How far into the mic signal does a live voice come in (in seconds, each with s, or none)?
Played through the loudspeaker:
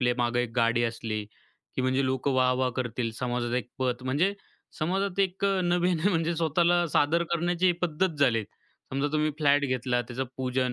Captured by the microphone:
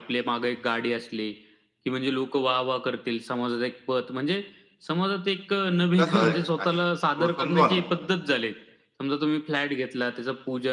6.0 s